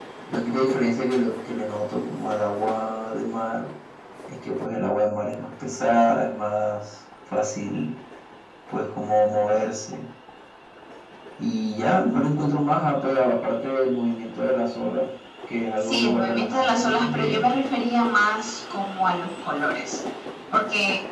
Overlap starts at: 15.8 s

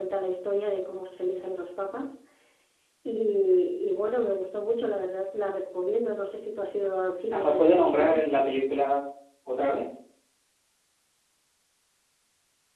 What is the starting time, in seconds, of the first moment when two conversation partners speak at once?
7.3 s

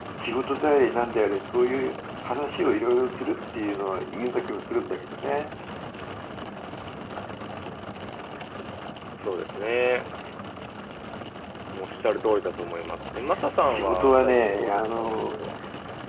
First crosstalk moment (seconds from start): 13.7 s

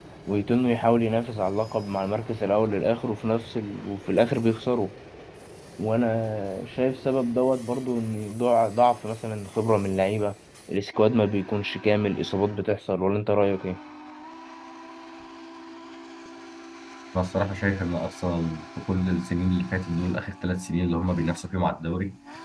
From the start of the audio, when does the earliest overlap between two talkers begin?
none

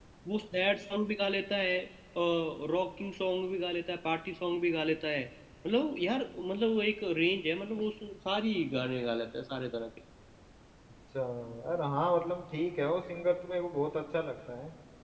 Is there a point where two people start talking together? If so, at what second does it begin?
none

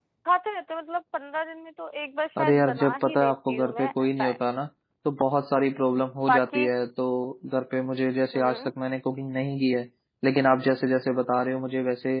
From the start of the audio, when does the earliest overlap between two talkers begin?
2.4 s

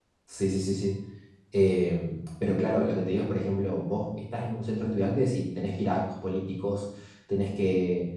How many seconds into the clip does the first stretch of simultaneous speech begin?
none

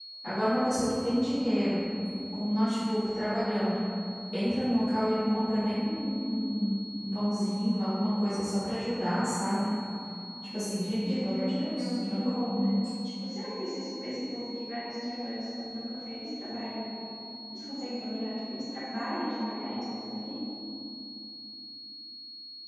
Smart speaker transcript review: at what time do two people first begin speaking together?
11.0 s

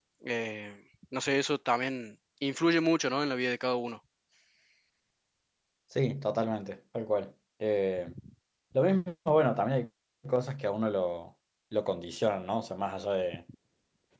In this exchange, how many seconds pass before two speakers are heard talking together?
none

